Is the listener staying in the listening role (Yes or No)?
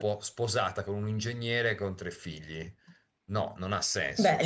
No